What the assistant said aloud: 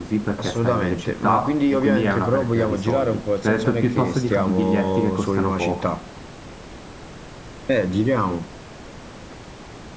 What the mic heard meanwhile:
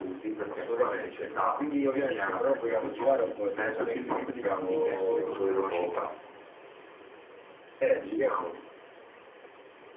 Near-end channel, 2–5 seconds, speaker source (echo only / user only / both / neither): echo only